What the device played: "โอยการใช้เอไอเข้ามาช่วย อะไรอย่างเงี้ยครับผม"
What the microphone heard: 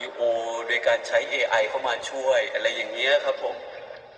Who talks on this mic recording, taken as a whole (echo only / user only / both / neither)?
echo only